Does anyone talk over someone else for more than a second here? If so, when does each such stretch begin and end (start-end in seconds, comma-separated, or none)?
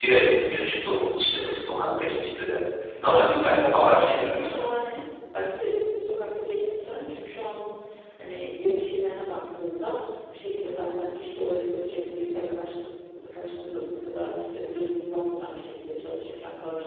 3.0-4.5